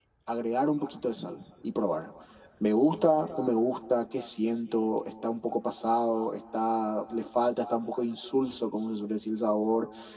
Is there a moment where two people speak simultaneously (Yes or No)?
No